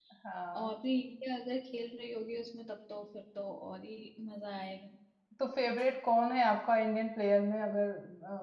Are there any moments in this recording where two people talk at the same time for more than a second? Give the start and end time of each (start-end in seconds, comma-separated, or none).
none